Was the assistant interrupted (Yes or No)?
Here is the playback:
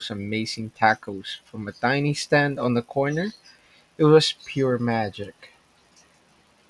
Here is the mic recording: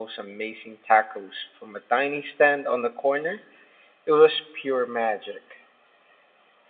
No